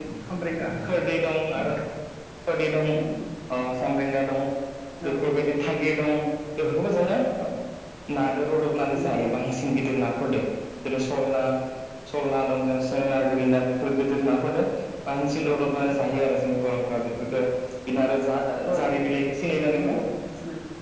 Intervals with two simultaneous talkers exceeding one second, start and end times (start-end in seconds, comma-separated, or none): none